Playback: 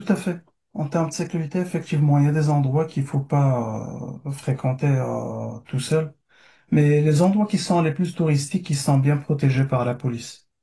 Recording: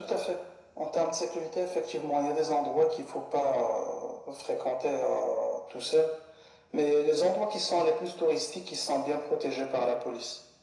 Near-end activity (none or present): none